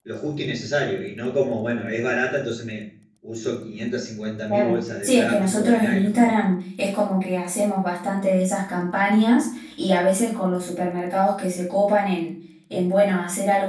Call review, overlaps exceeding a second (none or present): present